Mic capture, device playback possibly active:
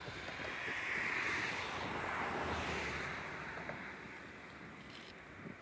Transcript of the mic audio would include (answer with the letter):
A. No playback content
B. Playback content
A